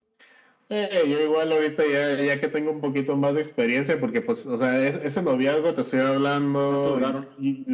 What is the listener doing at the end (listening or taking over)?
listening